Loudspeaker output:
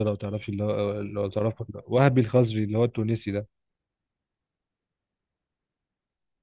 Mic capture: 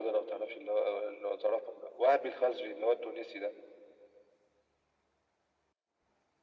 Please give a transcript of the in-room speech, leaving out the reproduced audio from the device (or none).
none